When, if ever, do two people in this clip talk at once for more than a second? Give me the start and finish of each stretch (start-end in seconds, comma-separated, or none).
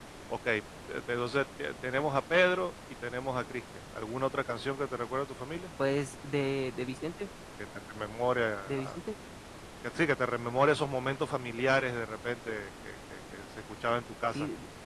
none